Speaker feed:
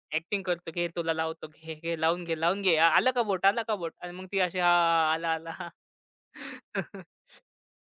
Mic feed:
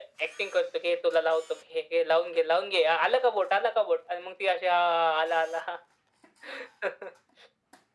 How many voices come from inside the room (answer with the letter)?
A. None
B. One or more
A